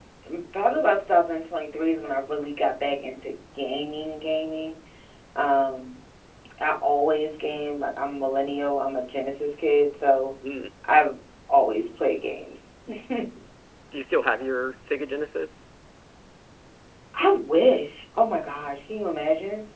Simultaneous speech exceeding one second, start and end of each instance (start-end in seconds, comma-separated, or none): none